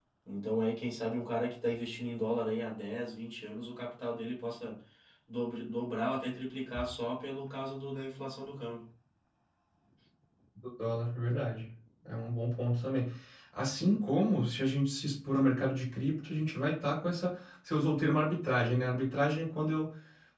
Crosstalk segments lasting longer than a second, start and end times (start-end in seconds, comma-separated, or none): none